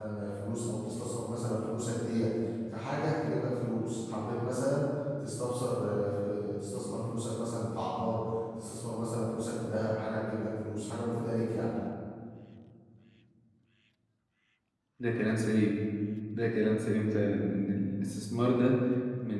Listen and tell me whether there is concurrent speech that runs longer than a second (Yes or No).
No